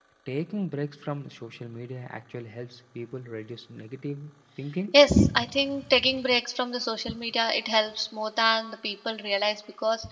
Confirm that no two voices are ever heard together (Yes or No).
Yes